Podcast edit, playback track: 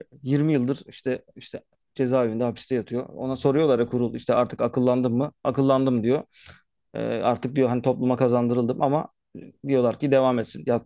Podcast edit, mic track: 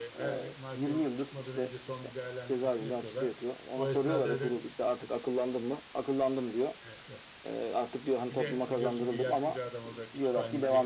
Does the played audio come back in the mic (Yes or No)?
Yes